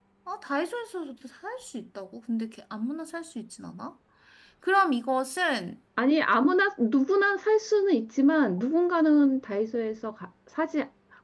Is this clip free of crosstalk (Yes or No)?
Yes